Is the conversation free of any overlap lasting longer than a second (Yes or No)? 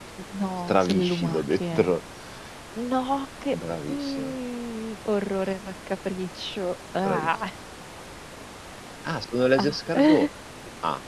No